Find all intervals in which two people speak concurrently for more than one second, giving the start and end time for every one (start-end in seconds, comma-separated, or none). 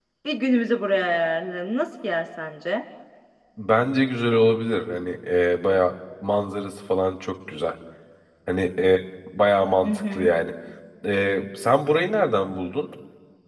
none